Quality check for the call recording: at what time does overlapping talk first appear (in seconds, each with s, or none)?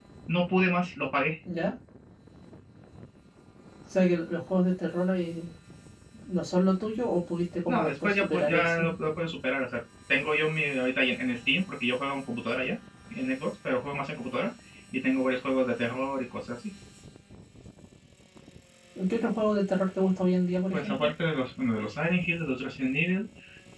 7.7 s